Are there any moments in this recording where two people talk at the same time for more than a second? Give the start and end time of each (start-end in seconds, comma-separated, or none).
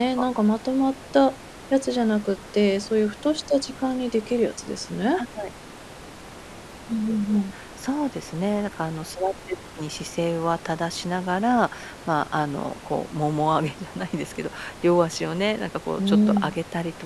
none